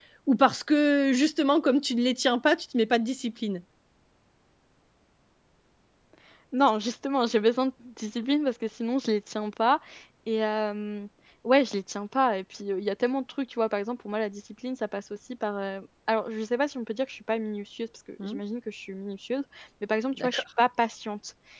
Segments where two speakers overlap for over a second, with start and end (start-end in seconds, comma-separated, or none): none